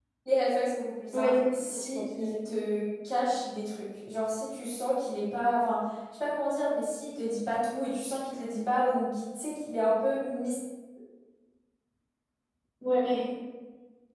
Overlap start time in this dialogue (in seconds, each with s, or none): 1.1 s